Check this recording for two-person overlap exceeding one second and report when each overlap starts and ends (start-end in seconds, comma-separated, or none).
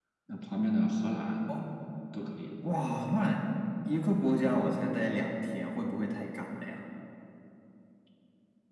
none